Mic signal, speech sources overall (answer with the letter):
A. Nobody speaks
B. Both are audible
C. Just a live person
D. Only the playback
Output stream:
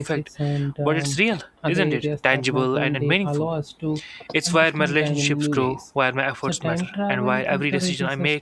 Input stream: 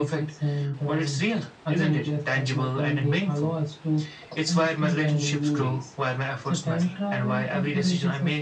D